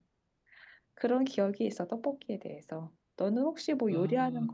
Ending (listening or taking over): taking over